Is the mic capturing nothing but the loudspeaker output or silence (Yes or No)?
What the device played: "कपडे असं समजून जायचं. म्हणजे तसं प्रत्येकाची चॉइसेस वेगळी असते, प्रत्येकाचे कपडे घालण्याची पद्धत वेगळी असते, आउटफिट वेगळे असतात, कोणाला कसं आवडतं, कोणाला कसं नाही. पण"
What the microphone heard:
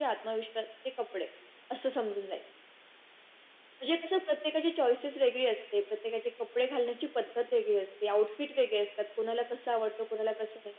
Yes